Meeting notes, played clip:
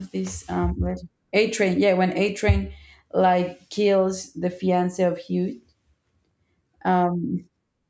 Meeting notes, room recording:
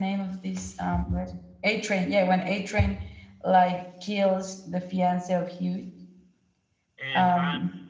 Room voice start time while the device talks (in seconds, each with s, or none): 7.0 s